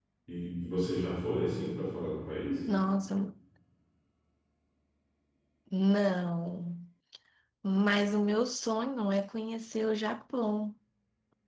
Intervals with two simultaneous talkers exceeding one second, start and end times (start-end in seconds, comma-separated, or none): none